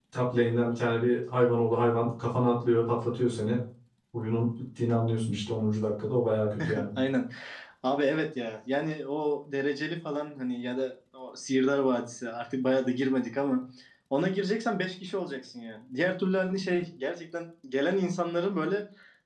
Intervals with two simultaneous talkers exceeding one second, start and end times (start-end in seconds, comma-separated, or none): none